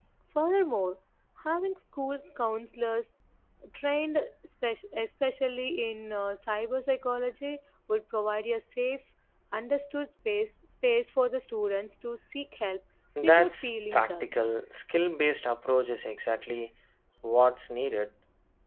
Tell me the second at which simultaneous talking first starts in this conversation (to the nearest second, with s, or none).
13 s